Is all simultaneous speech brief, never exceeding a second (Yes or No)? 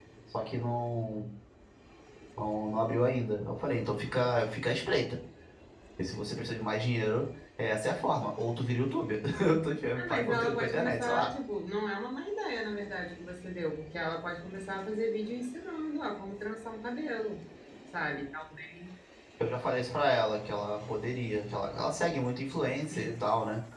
No